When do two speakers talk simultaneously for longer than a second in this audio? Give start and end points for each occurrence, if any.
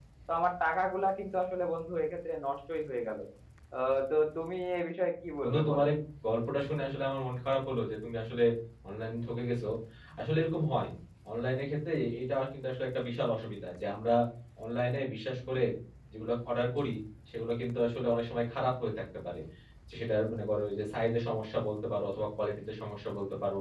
none

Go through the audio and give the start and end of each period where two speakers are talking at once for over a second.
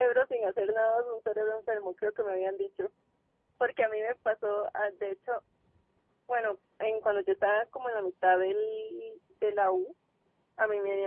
none

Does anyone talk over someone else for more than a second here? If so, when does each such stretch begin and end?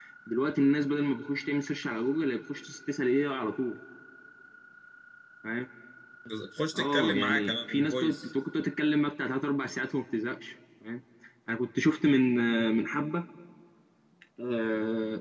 6.7-8.3

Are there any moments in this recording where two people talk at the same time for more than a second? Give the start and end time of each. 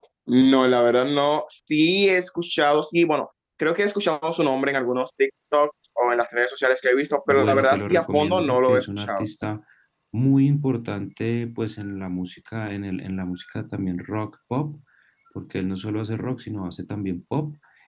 7.3-9.3

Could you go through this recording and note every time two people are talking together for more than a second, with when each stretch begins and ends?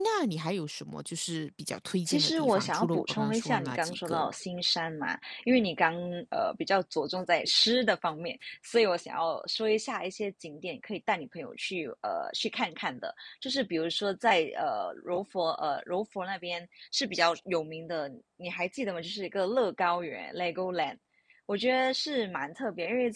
2.1-4.3

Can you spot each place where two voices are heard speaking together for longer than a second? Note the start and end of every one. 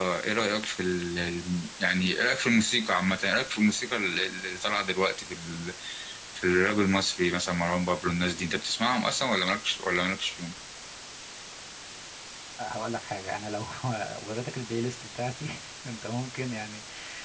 none

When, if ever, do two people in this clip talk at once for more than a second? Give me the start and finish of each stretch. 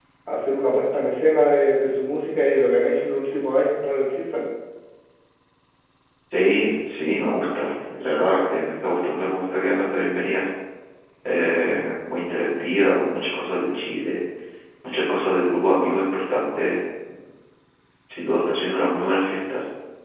none

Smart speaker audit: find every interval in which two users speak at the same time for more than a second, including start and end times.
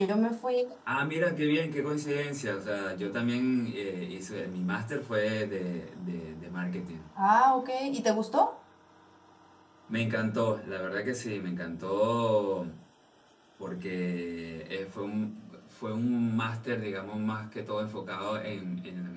none

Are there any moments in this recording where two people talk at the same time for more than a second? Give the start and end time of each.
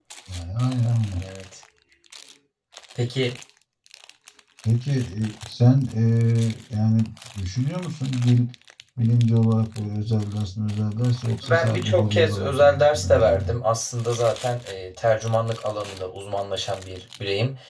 11.4-13.5

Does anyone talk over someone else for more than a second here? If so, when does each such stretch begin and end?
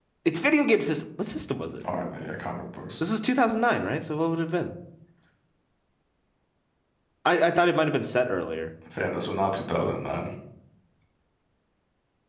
none

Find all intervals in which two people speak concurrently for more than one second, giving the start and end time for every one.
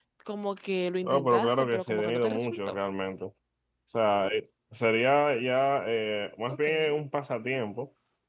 1.0-2.8

